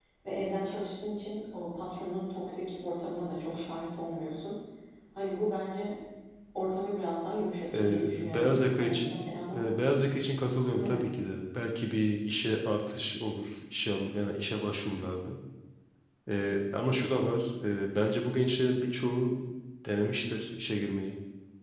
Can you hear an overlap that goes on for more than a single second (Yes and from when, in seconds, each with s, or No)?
Yes, from 7.7 s